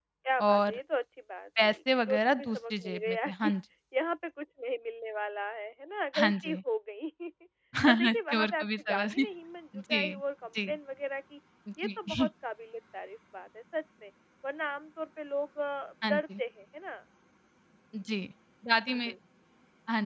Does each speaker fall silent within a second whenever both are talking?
No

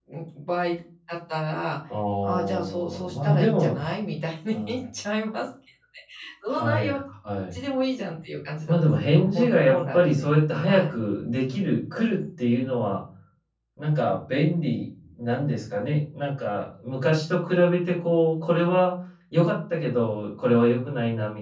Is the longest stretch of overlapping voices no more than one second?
No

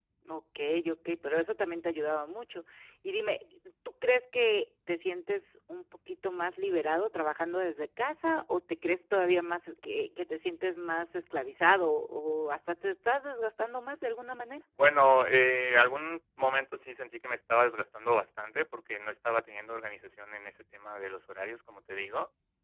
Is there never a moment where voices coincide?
Yes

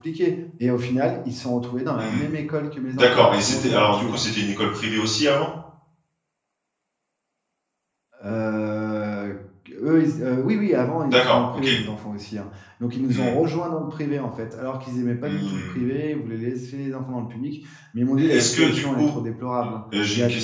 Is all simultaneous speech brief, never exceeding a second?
No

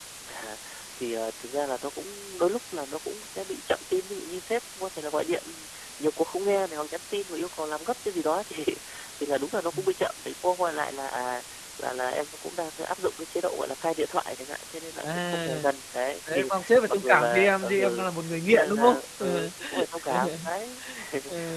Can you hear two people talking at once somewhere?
Yes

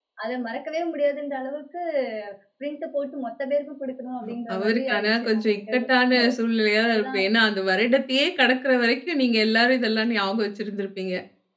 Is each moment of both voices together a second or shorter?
No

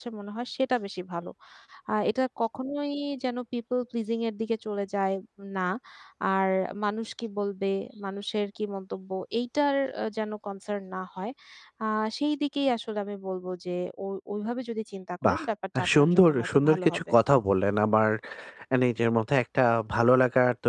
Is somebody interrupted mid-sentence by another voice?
Yes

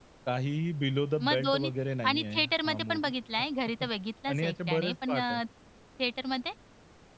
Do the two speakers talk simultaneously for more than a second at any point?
Yes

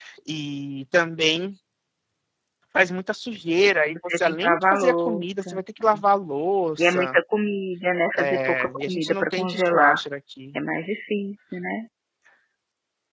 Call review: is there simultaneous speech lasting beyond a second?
Yes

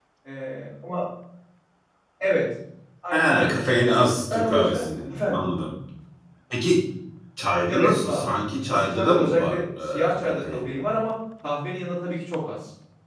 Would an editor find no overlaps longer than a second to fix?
No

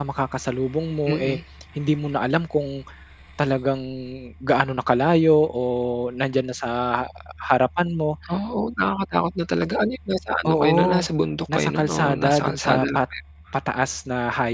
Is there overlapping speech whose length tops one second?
Yes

